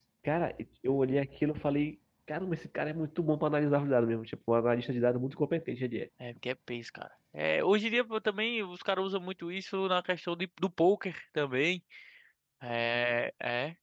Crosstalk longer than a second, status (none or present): none